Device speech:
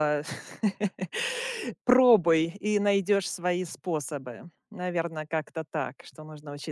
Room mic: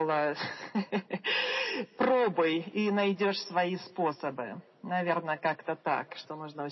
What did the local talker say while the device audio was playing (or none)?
none